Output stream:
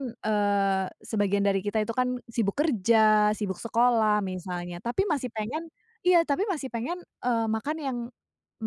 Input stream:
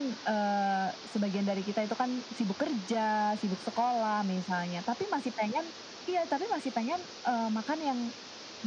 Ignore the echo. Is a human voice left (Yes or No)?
No